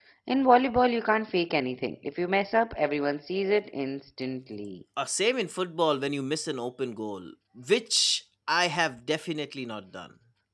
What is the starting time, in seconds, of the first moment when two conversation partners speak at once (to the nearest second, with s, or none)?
none